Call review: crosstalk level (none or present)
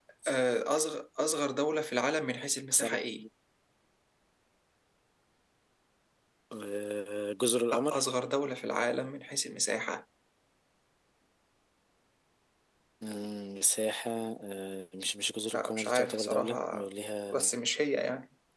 present